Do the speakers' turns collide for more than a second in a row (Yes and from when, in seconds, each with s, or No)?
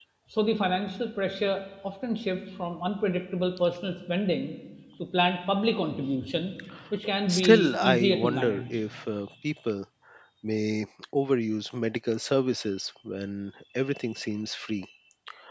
Yes, from 7.3 s